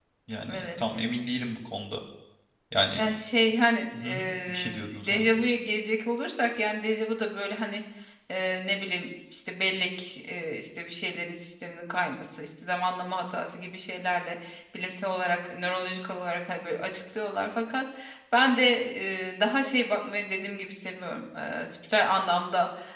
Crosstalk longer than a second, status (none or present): present